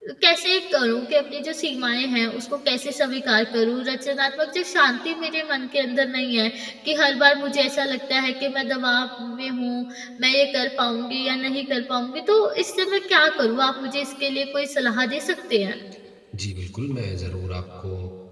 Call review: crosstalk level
none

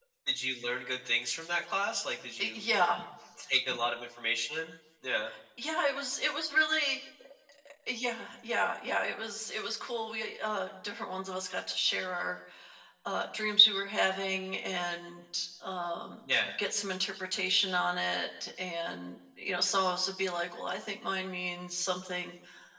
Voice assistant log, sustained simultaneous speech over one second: none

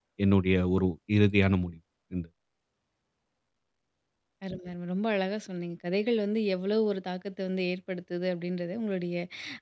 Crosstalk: none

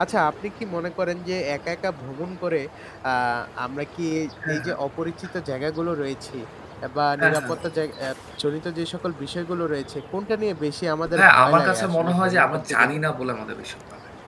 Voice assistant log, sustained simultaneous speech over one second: present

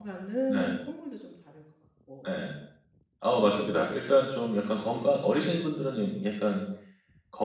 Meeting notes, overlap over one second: none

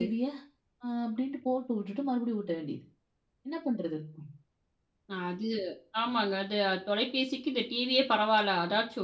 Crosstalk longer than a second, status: none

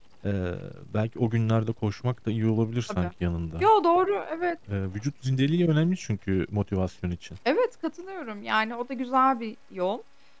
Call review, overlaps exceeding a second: none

